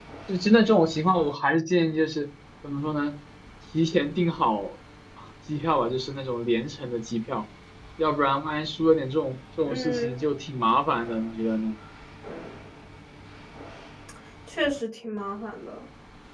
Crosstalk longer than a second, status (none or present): none